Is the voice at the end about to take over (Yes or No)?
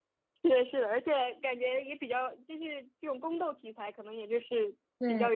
No